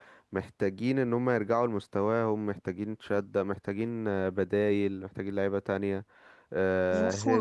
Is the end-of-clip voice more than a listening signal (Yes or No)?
Yes